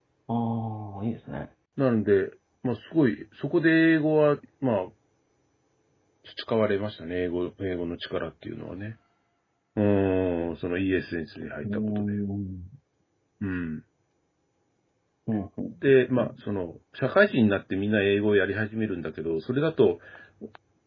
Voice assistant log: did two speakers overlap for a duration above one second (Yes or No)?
No